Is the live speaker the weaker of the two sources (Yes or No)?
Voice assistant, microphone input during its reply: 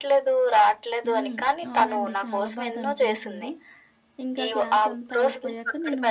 Yes